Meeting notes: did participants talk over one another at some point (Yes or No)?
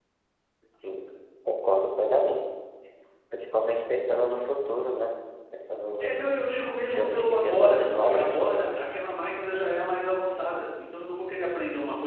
Yes